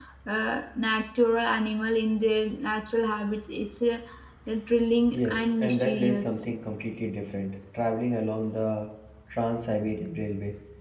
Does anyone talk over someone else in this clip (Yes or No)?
Yes